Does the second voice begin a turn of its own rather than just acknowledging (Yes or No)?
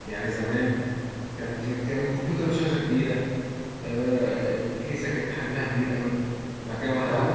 No